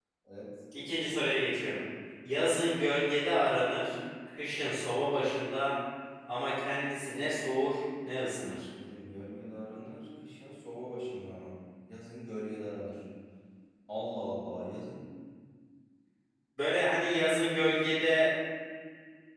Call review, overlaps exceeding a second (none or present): none